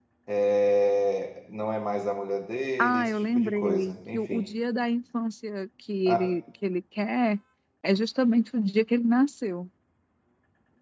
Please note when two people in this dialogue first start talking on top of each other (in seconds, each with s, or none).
2.8 s